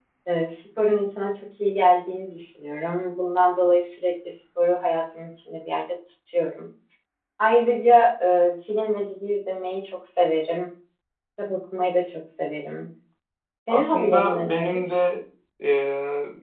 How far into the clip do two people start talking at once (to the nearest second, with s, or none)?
14 s